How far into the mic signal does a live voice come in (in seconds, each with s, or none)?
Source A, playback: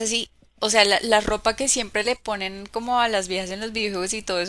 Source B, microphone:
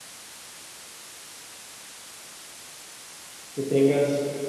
3.5 s